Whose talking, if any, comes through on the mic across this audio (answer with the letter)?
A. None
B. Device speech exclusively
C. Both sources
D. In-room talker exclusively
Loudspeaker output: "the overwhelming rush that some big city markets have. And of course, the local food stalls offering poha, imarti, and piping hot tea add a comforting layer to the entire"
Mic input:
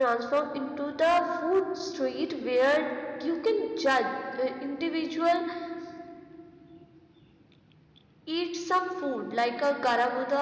D